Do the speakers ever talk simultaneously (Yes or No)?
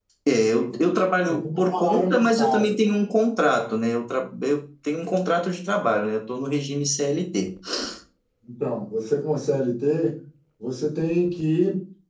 Yes